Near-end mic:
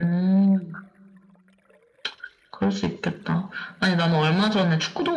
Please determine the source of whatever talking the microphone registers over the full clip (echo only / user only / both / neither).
echo only